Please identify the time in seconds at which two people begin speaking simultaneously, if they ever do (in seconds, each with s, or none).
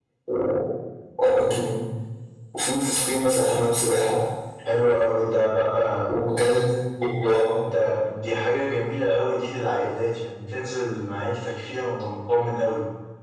none